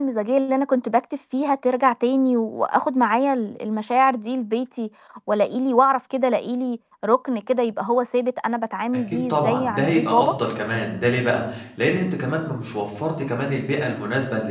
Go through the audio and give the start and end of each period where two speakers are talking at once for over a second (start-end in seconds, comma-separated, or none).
9.1-10.3